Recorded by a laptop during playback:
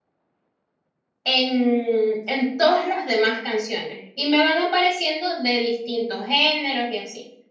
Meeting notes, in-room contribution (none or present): present